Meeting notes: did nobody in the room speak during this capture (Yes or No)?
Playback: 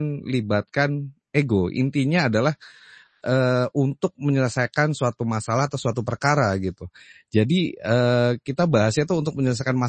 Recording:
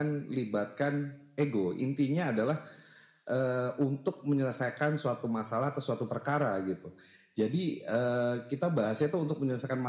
Yes